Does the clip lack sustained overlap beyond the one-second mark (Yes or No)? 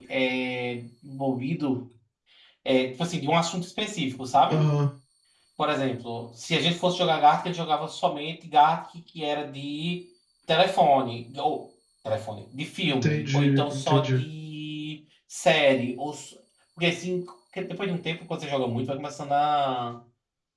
No